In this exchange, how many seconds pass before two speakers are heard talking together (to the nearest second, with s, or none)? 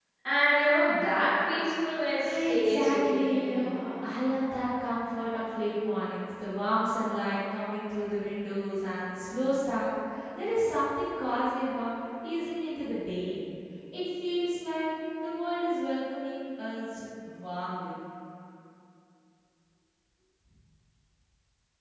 2 s